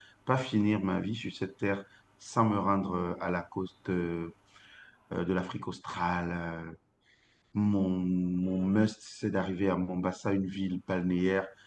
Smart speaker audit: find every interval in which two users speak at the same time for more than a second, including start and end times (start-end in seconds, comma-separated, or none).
none